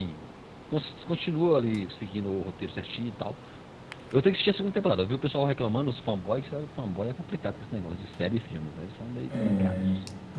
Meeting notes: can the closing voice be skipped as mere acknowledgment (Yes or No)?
No